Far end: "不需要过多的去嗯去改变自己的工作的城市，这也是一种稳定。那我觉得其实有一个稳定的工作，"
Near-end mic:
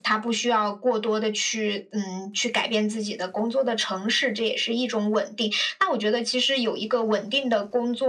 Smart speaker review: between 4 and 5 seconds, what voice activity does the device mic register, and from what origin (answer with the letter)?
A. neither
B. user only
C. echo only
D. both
C